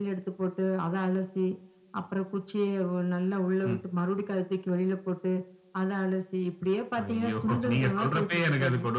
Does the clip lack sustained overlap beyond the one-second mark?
No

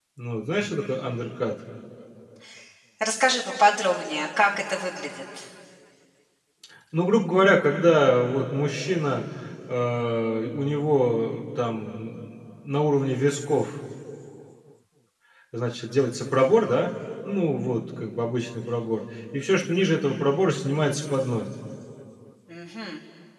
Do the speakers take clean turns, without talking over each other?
Yes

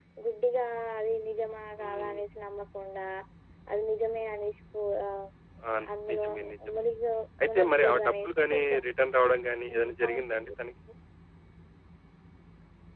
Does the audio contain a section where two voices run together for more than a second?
Yes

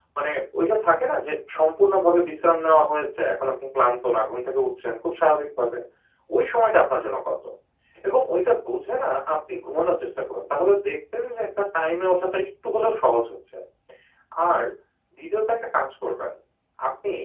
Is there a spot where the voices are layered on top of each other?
No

